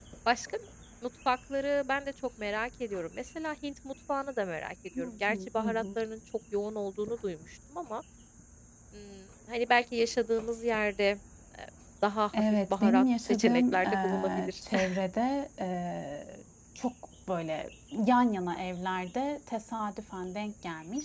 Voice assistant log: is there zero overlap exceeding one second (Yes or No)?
No